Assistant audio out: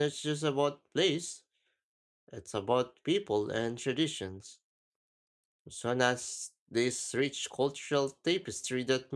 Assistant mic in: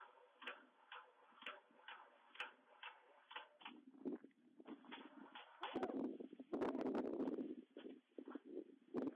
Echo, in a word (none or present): none